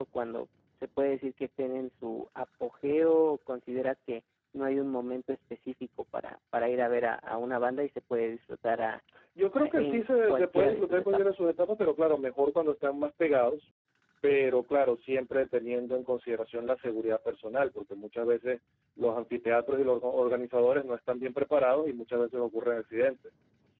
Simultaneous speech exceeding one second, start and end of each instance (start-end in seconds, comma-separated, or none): 9.6-11.2